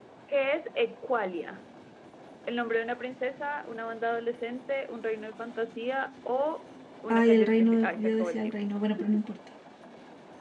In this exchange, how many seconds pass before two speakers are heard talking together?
7.1 s

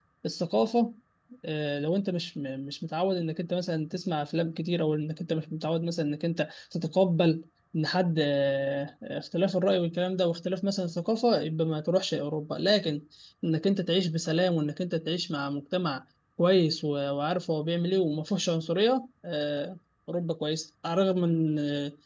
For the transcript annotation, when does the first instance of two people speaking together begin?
none

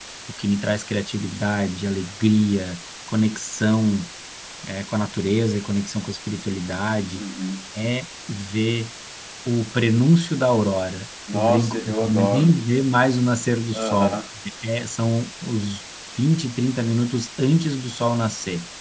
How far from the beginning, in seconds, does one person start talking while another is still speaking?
11.3 s

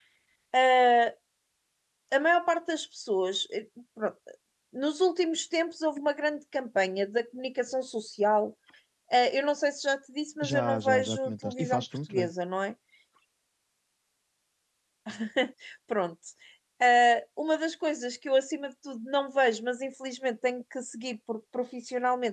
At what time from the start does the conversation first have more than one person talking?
10.4 s

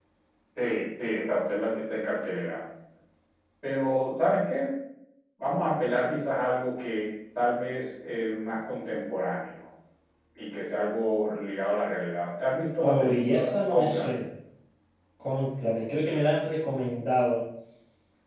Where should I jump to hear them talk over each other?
12.8 s

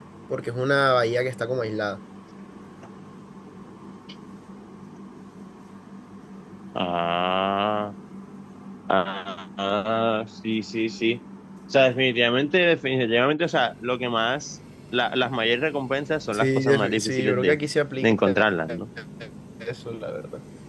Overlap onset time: 16.3 s

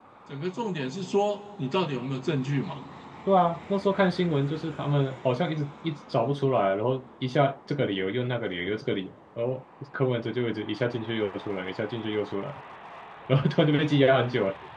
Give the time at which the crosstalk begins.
none

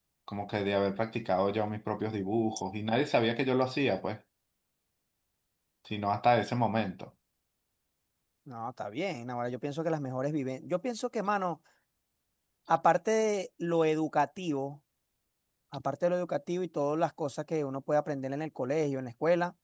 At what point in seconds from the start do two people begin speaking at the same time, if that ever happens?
none

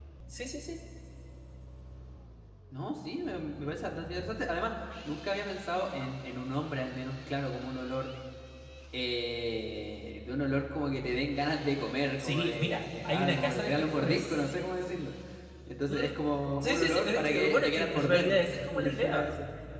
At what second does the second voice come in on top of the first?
12.2 s

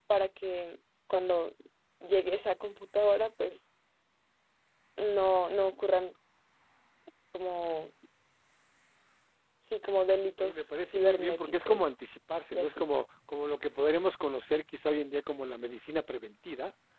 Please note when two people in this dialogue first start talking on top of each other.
10.4 s

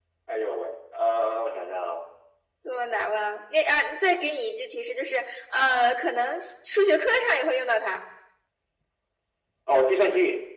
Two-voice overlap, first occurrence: none

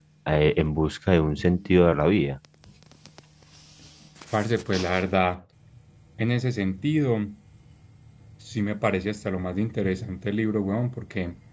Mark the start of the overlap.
none

